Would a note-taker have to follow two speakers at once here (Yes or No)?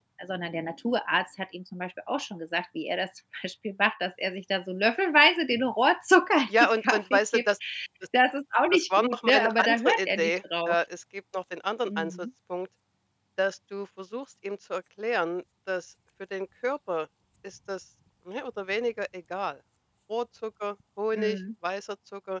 Yes